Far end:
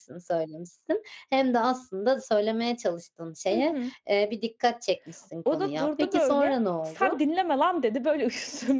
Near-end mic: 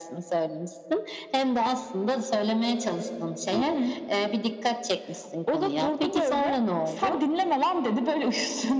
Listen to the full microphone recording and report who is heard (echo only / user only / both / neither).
echo only